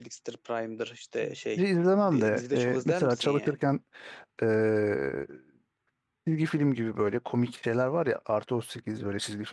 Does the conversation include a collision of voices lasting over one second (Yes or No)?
Yes